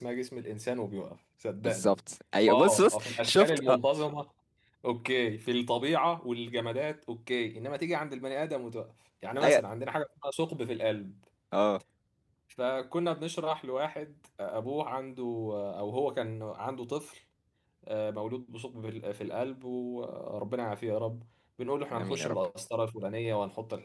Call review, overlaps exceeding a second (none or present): present